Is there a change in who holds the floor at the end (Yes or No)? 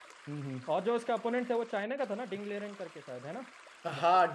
Yes